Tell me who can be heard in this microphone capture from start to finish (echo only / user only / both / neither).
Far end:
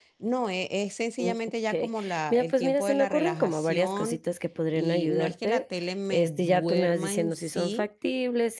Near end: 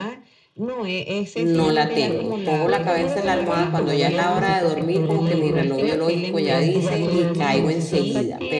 both